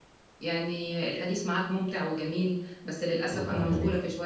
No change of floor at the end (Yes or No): Yes